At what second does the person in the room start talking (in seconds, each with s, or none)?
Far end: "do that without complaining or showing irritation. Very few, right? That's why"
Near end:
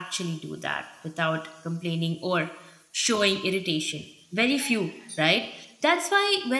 none